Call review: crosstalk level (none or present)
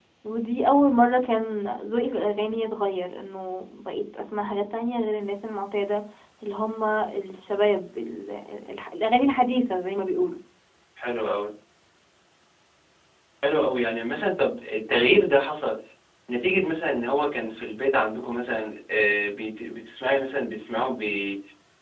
none